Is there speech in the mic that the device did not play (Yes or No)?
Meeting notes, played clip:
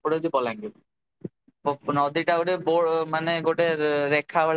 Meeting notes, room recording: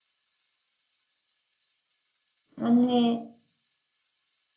Yes